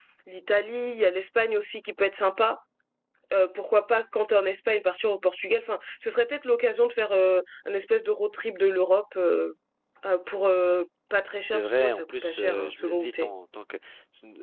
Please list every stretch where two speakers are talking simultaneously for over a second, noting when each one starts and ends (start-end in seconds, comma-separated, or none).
11.5-13.3